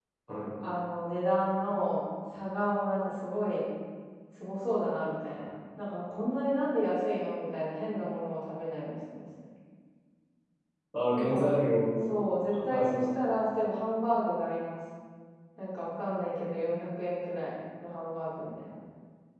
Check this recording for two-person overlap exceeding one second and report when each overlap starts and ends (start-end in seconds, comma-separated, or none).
none